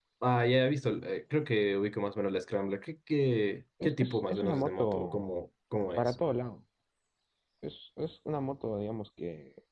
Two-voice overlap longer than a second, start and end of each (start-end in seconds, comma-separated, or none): 3.8-5.3